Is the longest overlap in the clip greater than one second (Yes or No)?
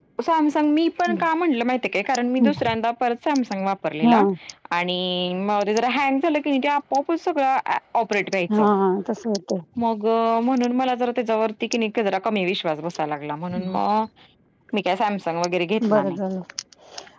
No